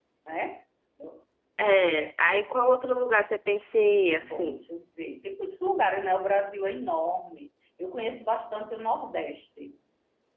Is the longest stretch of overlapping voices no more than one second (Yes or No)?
Yes